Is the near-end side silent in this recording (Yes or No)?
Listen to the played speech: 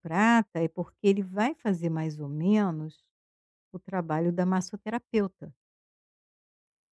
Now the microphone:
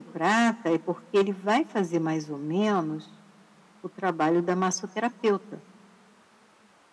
Yes